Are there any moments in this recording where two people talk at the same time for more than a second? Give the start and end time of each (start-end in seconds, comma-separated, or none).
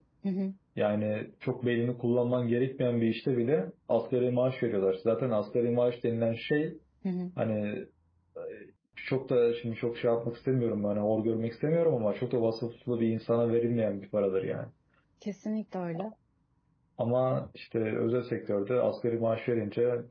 none